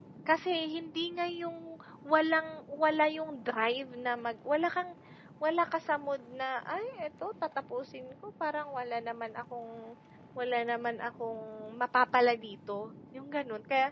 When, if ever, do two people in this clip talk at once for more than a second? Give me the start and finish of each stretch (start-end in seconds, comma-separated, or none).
none